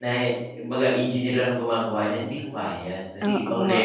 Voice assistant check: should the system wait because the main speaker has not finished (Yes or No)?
No